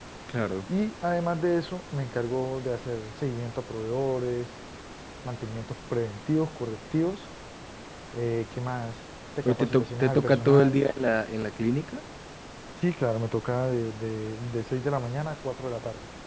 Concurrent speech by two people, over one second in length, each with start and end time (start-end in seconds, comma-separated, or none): 9.4-10.8